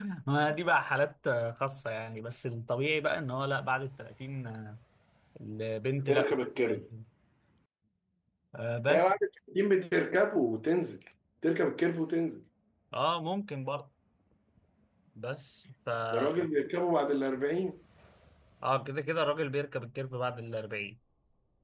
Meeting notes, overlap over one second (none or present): none